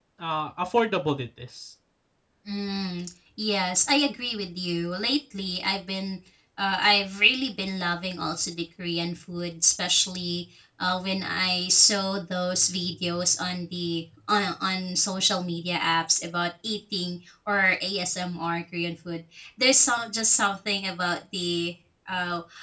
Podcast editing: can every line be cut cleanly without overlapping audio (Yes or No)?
Yes